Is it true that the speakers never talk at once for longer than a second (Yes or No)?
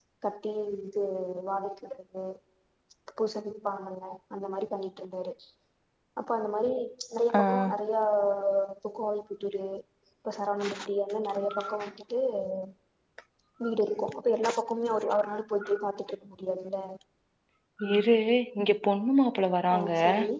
Yes